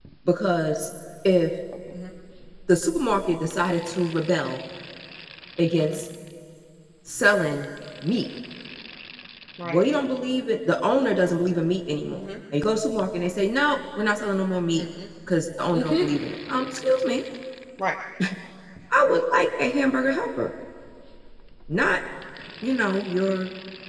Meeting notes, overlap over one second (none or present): none